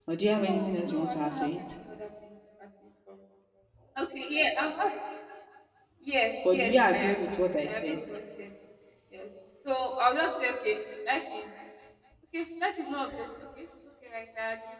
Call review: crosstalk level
present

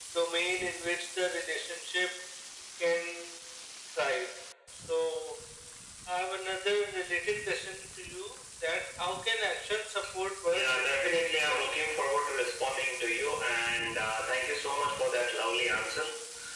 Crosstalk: present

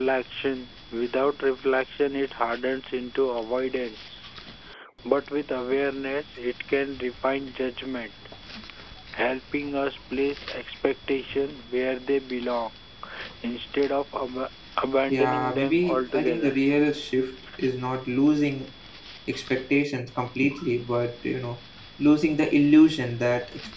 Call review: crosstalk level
present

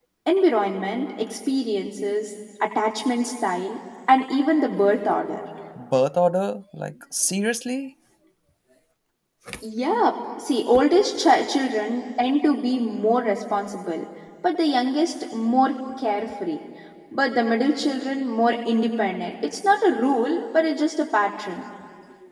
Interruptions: none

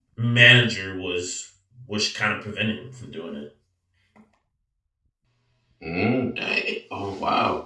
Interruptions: none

